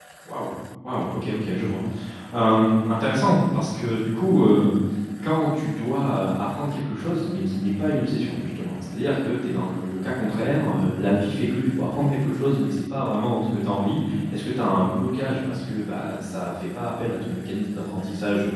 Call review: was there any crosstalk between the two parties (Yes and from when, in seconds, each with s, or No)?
No